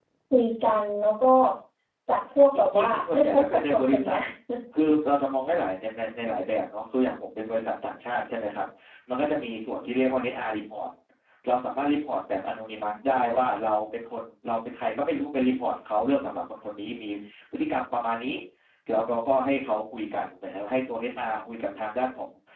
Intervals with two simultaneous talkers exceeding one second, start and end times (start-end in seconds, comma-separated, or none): 2.5-4.2